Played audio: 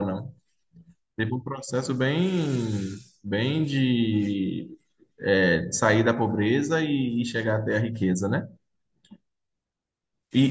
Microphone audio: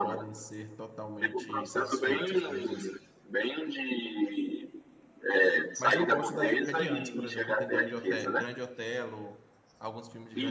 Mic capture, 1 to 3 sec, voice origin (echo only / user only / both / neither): both